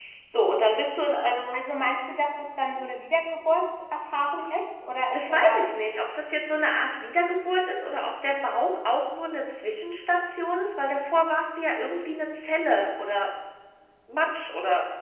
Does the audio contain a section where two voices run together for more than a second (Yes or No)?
No